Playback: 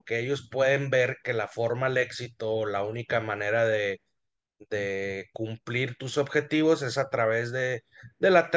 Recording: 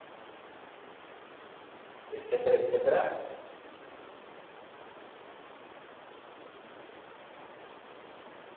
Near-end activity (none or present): present